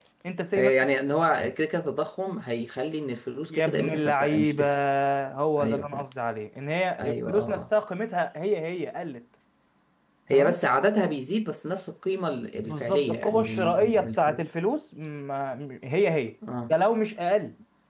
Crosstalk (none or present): present